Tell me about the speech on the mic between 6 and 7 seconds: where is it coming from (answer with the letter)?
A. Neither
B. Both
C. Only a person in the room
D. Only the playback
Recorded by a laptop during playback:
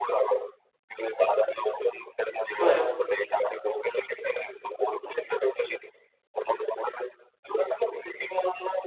D